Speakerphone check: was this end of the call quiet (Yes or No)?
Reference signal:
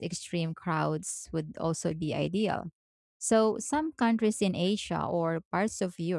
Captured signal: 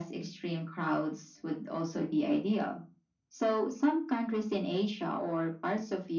Yes